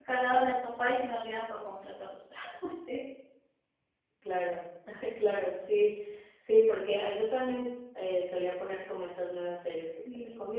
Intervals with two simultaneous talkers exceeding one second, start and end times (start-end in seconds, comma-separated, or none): none